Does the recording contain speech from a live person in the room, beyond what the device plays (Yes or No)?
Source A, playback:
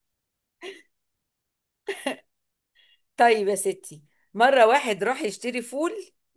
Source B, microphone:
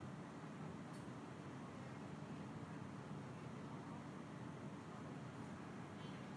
No